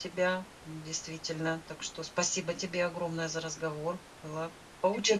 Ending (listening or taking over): taking over